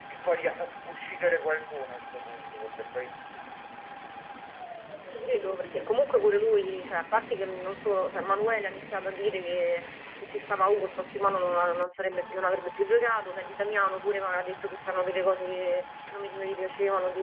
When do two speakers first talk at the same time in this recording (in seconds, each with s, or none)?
none